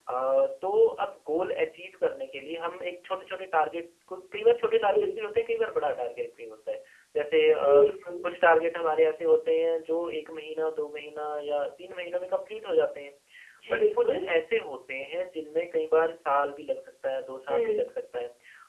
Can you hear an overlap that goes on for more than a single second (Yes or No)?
No